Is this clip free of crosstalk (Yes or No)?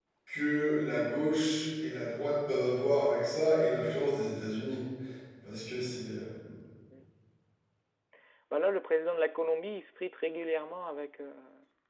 Yes